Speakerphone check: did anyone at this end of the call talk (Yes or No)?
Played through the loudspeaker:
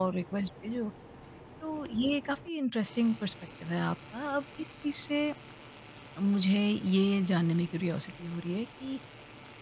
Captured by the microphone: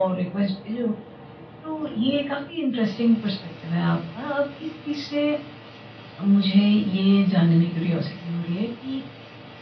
No